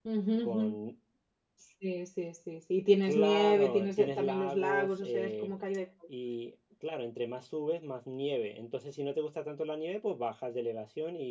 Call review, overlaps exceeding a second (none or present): present